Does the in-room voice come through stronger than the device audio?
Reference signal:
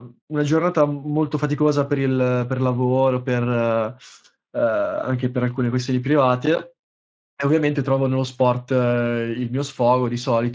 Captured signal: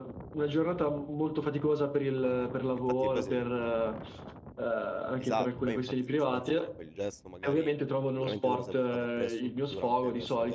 No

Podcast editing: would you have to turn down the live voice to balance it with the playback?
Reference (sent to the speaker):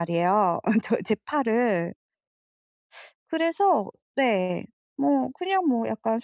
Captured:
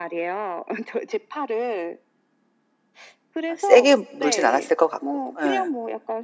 Yes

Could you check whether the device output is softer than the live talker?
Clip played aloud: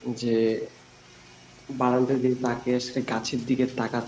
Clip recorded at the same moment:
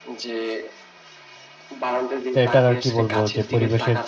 Yes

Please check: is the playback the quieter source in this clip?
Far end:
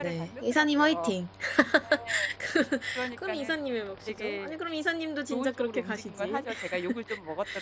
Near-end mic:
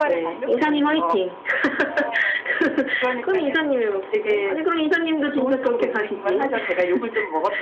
No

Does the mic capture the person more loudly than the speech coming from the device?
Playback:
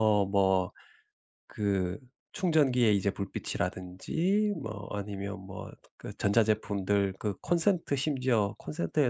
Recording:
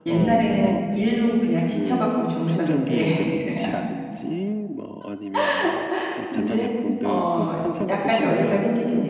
Yes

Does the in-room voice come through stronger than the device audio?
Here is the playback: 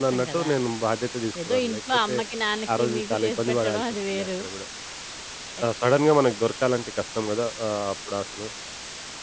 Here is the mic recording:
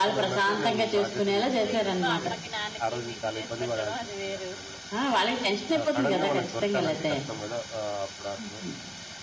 Yes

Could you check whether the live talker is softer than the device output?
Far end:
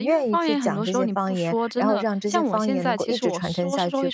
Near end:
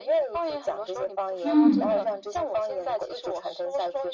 No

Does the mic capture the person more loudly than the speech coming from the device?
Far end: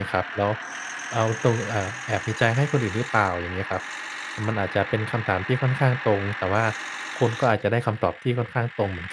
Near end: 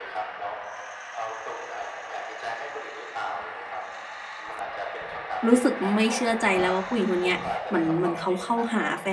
Yes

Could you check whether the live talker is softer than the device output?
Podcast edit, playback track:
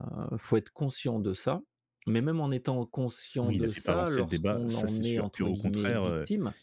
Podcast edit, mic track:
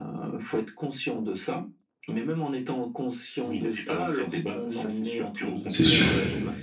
No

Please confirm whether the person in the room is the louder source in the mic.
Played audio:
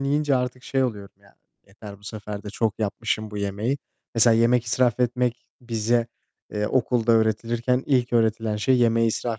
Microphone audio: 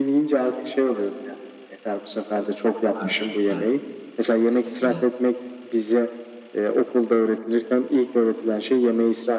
No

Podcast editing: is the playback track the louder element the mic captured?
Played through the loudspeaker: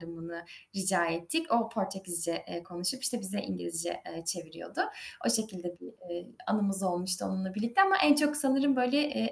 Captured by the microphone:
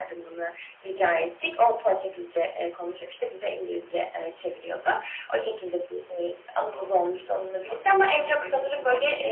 Yes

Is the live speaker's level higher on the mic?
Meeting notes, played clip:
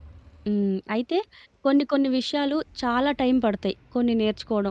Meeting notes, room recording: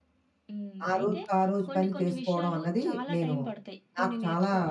Yes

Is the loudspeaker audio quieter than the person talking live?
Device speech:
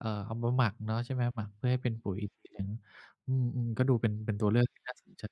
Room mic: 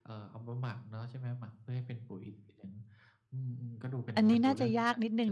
Yes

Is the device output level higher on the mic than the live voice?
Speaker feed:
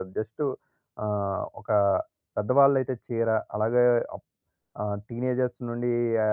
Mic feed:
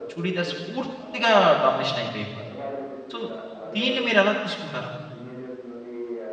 No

